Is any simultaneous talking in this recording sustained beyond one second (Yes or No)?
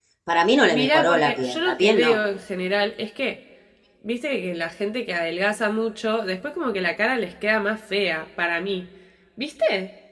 Yes